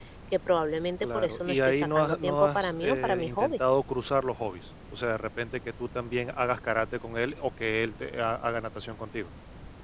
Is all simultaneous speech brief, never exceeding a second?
No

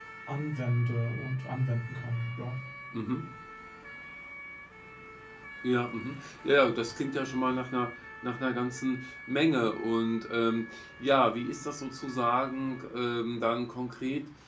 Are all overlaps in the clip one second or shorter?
Yes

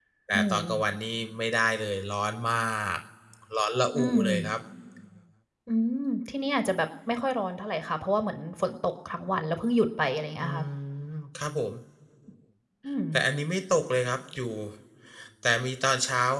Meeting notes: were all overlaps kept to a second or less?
Yes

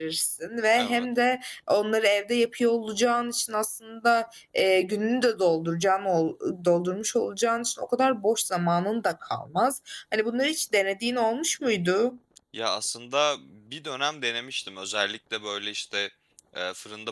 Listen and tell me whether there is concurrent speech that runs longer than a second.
No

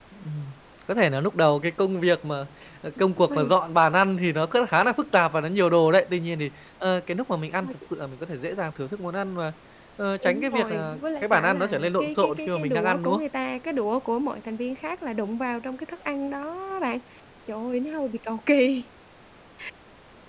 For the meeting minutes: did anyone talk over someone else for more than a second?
Yes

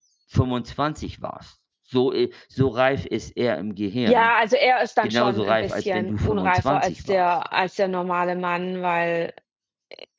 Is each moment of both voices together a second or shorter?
No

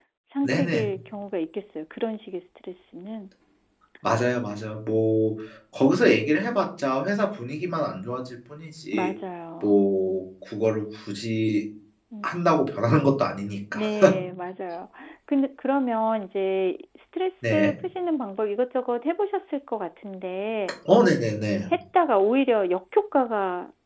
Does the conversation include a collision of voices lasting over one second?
No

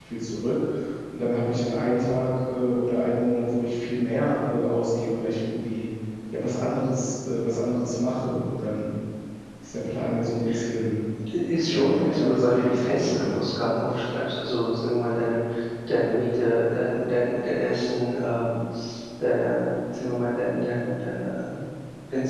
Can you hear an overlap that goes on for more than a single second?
Yes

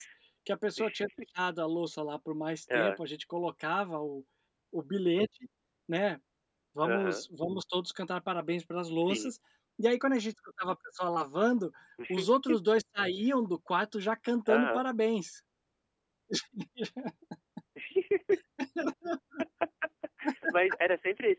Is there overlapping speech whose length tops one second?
No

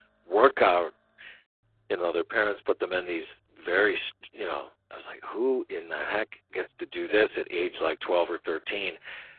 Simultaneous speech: No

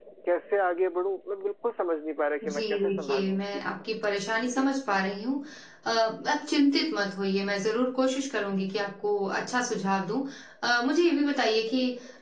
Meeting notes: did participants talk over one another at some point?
Yes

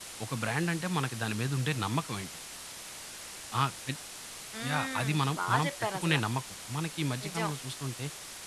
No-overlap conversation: No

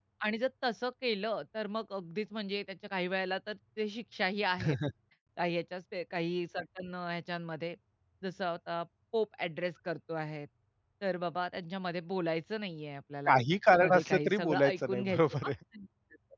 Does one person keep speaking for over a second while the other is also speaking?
Yes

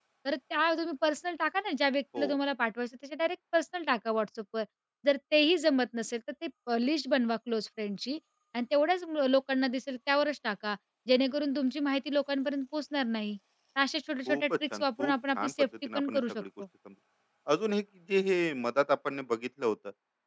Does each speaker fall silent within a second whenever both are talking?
No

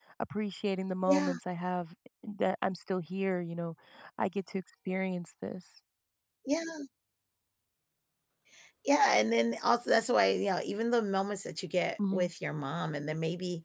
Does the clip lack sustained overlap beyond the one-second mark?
Yes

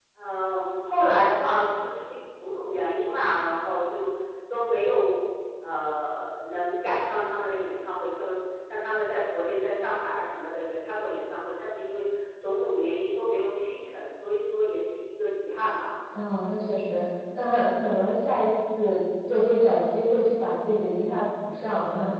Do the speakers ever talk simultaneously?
No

